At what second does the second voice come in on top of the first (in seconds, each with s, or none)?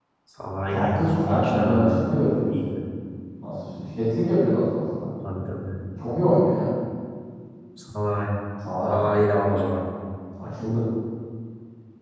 0.7 s